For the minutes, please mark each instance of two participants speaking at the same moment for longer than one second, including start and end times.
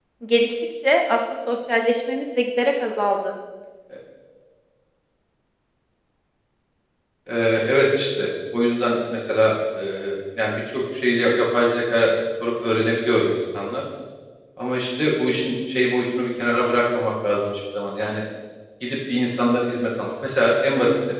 none

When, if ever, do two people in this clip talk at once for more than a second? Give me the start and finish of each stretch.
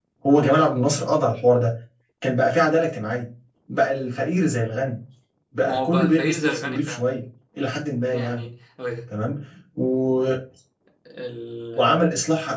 5.6-7.0

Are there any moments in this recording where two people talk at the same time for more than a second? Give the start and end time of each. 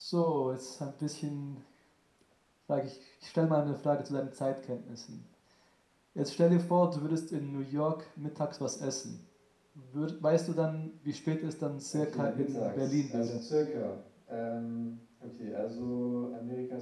11.9-13.4

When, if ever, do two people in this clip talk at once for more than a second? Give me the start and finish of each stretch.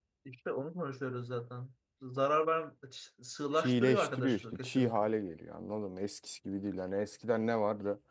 3.5-5.0

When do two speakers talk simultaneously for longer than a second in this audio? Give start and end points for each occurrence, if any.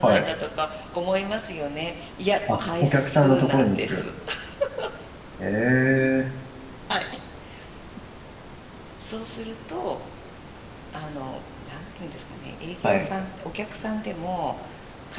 2.6-4.1

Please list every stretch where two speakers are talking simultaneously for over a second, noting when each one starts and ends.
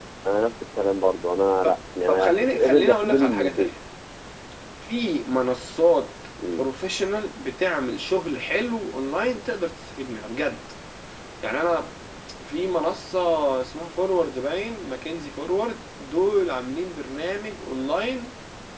2.1-3.7

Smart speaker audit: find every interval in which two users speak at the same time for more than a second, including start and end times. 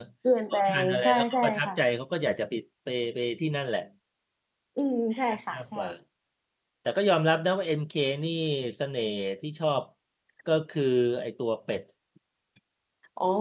0.5-1.7

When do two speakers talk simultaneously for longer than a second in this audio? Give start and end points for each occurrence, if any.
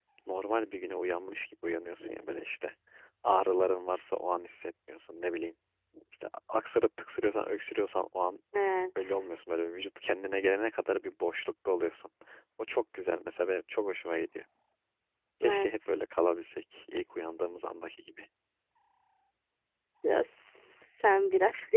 none

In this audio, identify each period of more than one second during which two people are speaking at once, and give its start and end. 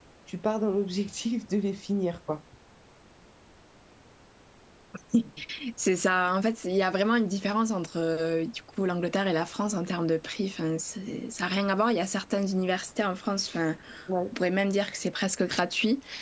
none

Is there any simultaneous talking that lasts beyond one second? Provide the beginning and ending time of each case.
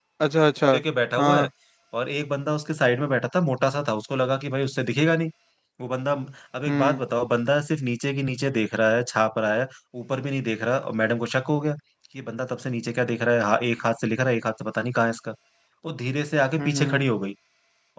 none

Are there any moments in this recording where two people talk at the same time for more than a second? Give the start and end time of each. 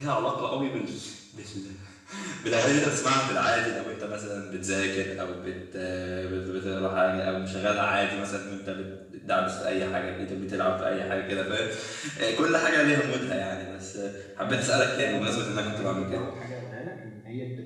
14.4-16.2

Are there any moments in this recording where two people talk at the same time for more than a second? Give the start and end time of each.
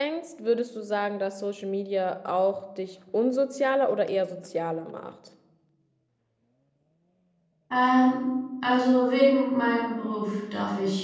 none

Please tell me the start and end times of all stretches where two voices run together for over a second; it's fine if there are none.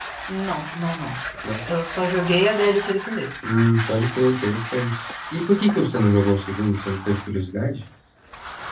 none

